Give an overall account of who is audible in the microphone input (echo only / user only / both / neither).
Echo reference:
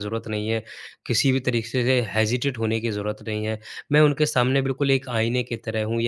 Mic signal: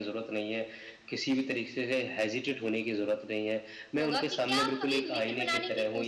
both